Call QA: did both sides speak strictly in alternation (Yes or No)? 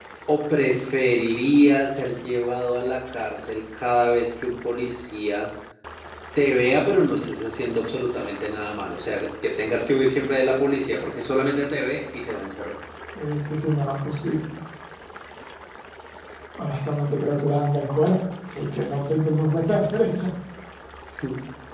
Yes